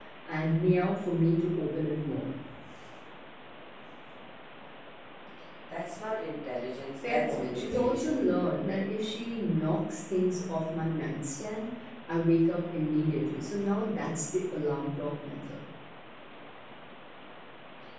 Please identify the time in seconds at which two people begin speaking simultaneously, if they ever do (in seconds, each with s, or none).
7.0 s